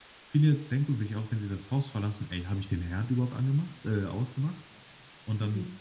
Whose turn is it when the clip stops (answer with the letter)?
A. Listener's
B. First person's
B